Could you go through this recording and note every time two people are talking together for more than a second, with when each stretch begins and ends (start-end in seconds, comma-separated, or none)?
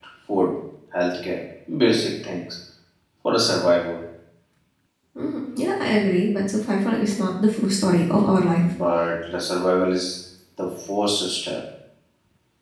none